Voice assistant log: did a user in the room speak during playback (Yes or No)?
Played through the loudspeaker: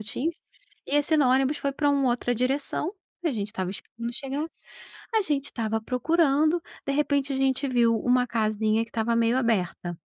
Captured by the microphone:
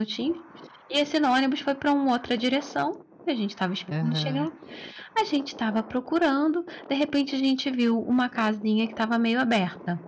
Yes